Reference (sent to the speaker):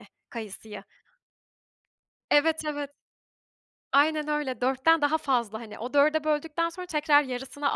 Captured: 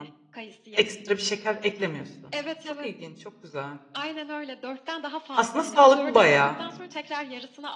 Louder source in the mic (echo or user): user